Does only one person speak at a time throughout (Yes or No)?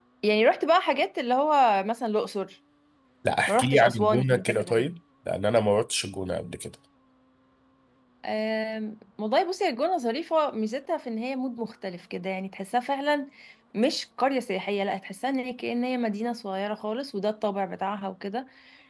No